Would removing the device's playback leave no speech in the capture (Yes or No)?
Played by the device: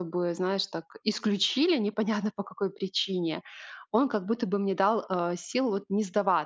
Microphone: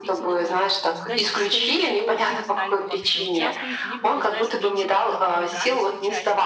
No